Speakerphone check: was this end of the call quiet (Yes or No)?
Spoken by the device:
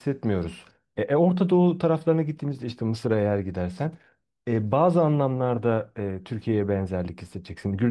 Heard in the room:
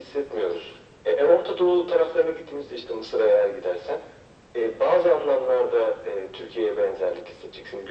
Yes